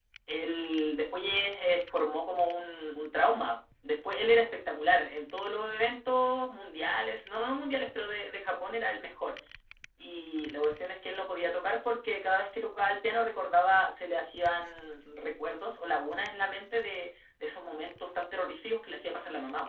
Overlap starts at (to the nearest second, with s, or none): none